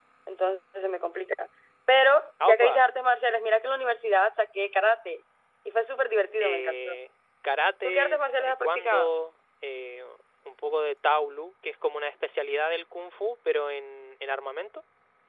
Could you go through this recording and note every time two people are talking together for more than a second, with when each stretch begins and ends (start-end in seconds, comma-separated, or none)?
7.8-9.1